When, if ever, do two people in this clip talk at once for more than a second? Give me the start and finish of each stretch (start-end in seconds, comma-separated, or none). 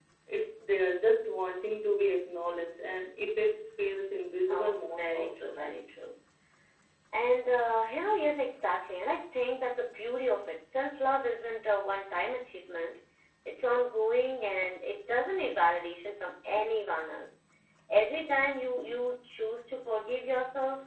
4.5-5.9